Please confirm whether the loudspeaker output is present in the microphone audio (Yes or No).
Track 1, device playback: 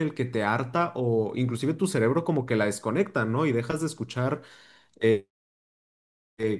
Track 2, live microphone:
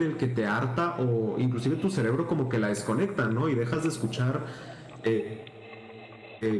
Yes